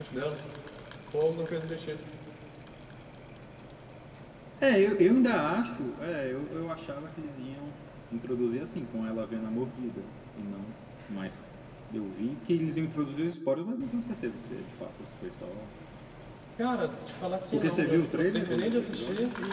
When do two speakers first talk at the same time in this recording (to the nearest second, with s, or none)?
18 s